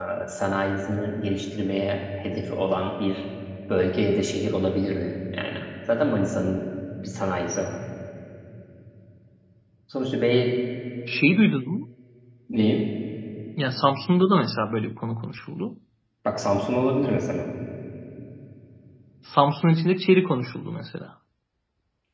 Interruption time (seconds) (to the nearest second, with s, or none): none